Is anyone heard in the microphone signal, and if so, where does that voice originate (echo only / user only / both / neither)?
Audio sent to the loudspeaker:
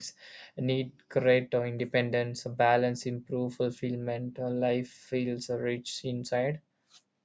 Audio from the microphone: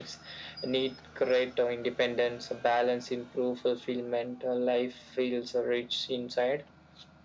echo only